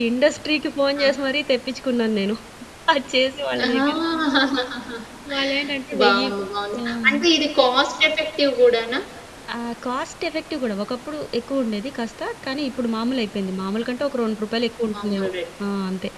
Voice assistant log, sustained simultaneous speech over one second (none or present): none